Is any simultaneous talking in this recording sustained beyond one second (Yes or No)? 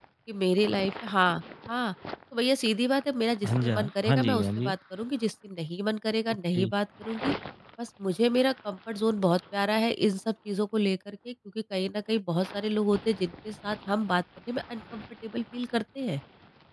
Yes